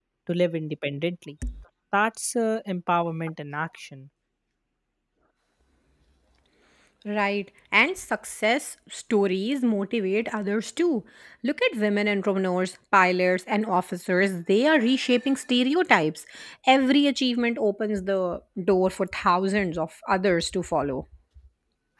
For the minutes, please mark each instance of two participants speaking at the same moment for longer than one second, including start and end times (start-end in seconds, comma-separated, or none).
none